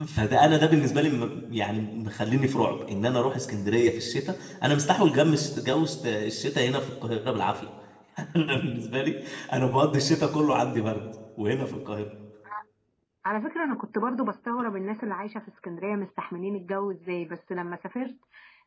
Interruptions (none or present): none